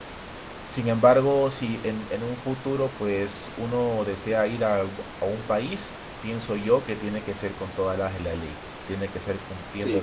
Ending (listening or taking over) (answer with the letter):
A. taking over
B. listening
A